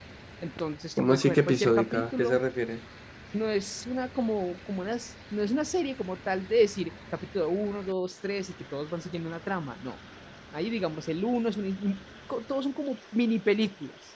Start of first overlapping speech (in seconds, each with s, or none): 1.0 s